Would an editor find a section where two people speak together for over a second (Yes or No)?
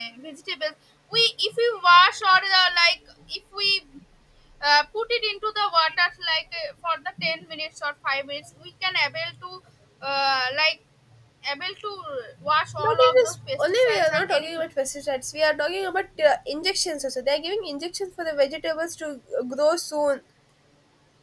Yes